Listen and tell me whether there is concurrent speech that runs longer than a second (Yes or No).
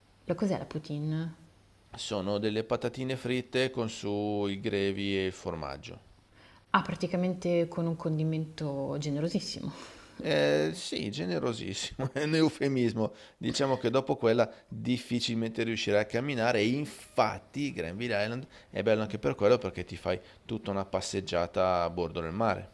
No